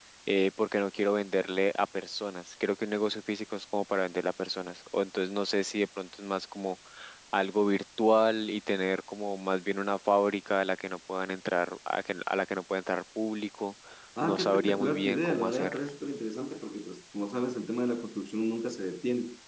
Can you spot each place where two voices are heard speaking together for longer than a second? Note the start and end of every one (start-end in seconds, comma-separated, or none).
14.2-15.8